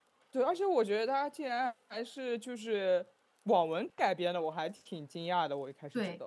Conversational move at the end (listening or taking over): taking over